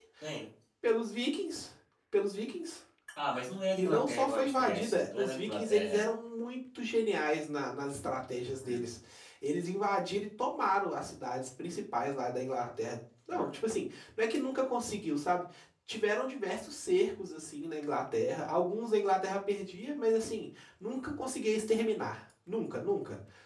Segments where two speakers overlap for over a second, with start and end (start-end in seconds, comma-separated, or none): 3.8-6.1